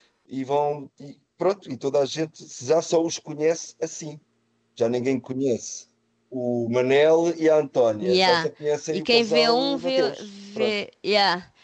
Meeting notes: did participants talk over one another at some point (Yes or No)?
Yes